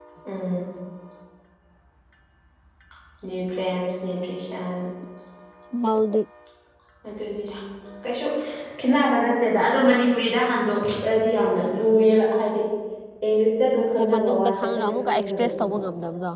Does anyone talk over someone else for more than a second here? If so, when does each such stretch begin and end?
14.0-15.8

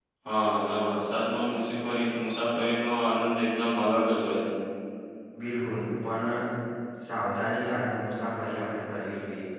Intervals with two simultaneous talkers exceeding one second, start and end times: none

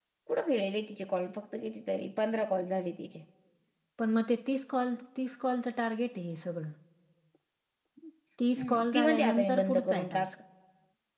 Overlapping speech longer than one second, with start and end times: 8.6-10.3

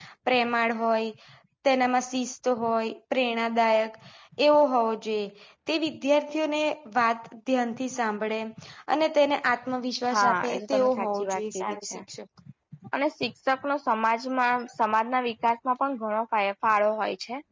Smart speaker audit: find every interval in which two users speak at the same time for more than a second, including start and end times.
10.1-12.0

